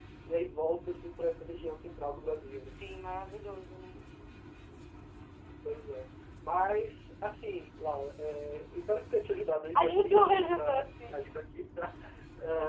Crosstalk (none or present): present